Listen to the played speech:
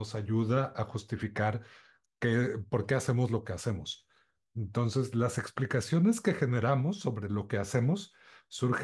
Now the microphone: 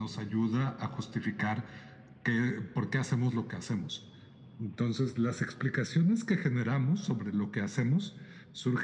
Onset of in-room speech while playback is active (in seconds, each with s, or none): none